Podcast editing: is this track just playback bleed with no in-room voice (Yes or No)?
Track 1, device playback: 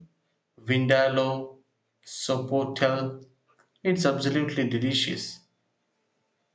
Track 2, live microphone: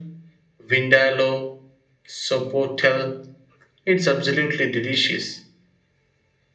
Yes